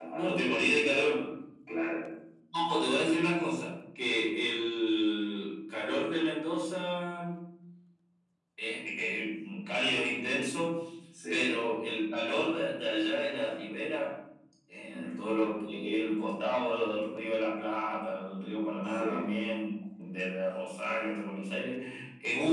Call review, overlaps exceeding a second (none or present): none